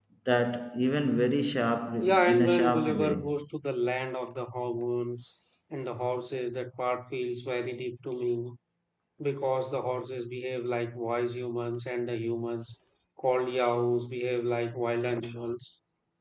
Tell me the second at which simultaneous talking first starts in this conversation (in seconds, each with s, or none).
2.0 s